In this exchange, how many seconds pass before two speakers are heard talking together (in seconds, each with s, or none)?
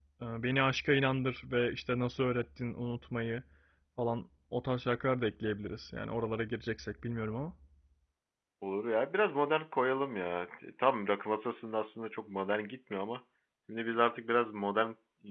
none